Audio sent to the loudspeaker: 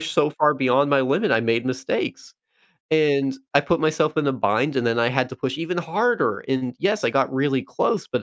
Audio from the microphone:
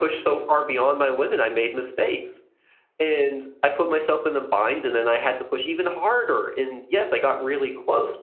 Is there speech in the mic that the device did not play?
No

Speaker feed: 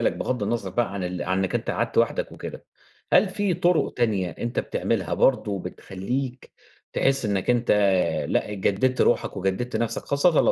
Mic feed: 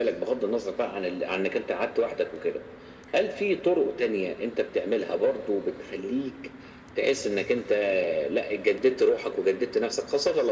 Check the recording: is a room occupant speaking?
No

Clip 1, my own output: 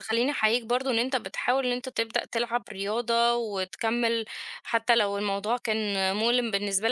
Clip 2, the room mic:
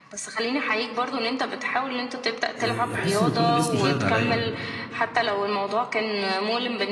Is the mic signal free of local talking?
No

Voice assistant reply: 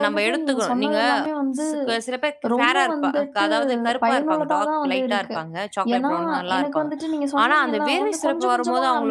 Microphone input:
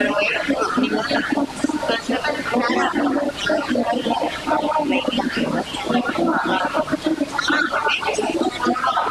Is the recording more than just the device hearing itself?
No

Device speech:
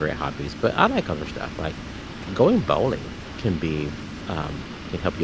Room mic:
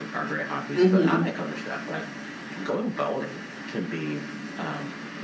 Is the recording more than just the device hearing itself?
Yes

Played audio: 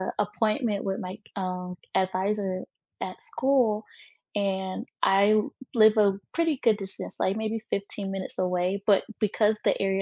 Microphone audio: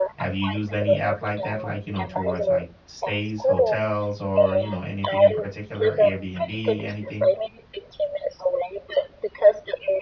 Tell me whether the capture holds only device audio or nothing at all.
No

